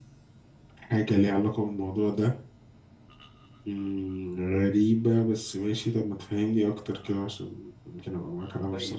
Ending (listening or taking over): taking over